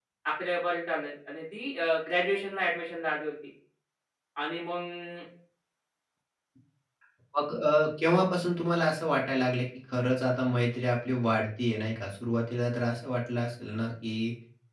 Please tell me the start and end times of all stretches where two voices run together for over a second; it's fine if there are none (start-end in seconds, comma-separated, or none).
none